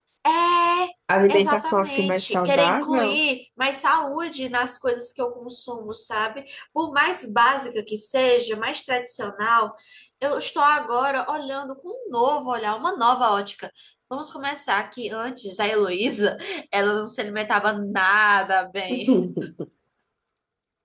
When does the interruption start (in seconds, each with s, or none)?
1.3 s